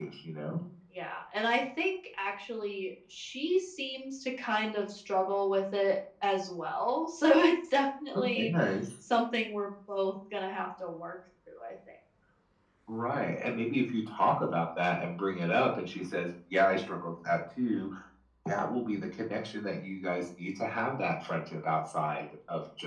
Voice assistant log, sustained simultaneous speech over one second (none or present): none